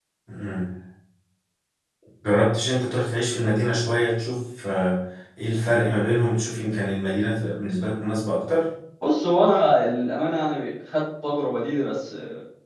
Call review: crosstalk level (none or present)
none